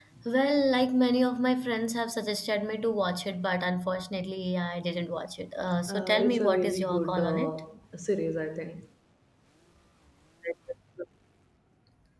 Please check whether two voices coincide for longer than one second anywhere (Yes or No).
Yes